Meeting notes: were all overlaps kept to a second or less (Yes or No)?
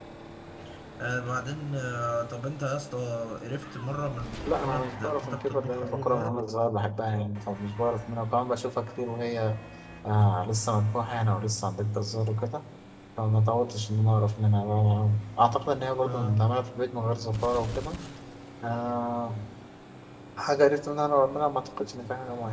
No